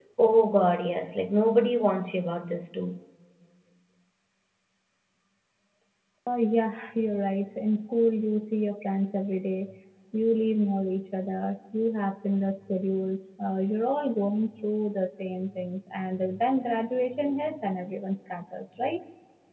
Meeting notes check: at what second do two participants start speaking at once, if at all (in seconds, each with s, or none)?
none